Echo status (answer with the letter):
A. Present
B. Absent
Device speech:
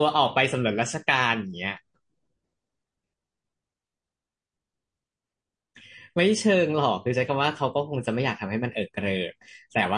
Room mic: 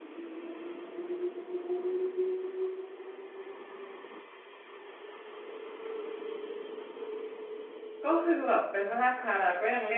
B